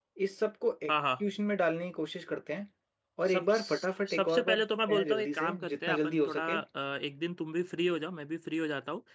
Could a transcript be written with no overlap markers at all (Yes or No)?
No